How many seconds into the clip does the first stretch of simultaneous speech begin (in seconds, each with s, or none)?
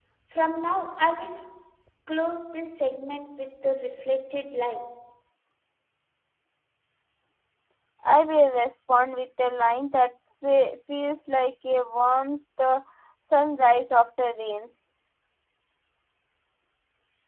none